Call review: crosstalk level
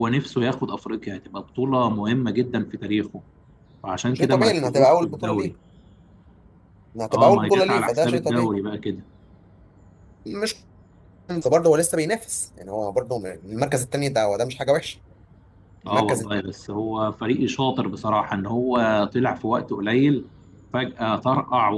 present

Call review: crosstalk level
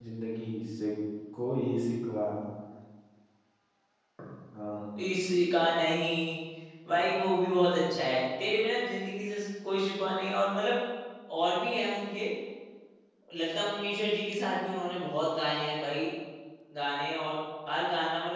none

